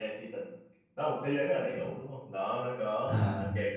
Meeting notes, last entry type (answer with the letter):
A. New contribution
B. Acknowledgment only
B